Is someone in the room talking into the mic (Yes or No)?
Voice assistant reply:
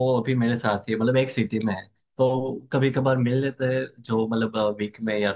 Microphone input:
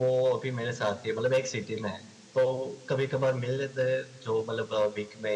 No